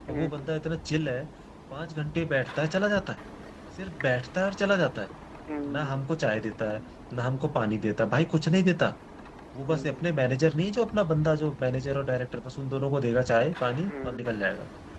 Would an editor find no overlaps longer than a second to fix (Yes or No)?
Yes